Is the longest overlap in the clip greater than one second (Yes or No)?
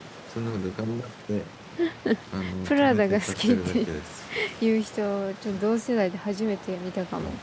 Yes